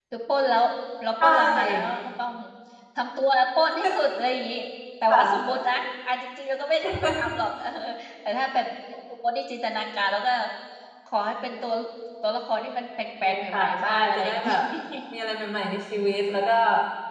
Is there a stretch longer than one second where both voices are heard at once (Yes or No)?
Yes